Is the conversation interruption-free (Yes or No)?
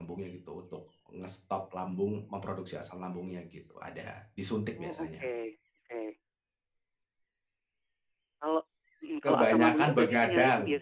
No